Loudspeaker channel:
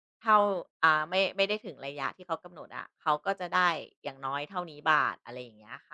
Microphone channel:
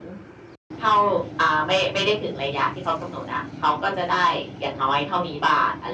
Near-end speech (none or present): none